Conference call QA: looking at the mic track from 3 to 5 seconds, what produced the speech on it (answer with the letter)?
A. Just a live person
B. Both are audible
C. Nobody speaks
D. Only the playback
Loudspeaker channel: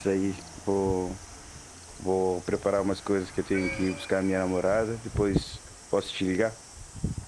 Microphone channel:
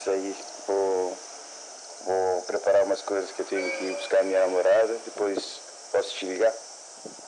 D